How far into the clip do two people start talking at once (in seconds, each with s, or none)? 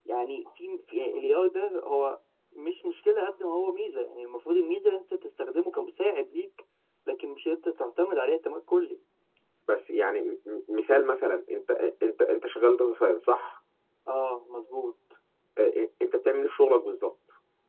none